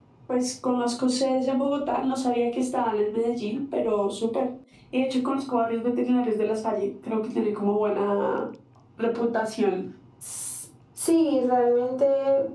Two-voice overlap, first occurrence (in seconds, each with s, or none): none